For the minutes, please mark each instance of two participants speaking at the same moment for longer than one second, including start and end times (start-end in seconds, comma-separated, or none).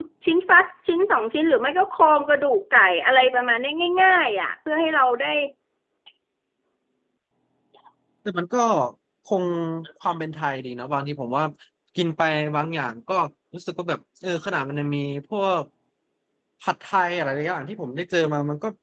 none